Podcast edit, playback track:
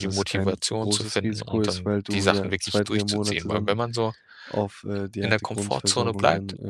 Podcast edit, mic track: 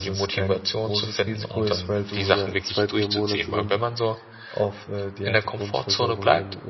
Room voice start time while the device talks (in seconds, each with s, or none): none